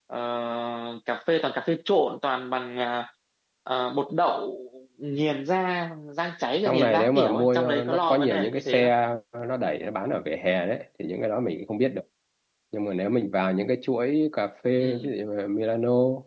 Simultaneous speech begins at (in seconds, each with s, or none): 6.6 s